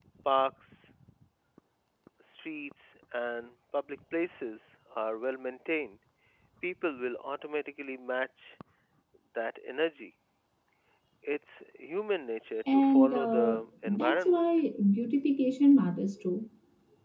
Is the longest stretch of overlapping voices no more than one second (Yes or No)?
No